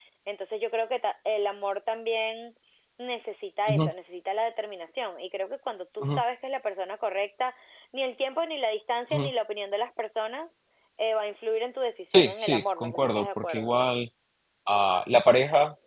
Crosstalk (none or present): present